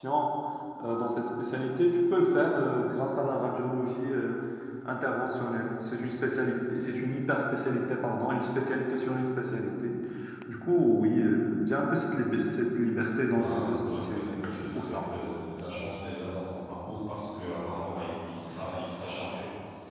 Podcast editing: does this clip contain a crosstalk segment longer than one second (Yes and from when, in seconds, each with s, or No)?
Yes, from 13.3 s